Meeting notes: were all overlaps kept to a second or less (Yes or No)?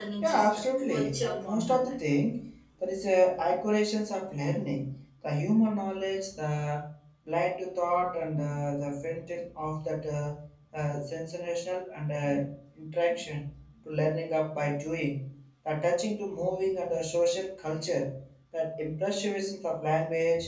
No